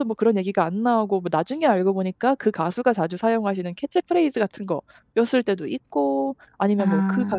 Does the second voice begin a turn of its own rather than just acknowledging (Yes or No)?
No